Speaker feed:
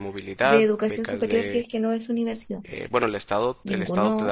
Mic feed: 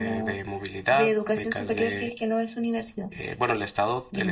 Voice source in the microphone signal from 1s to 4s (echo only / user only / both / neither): echo only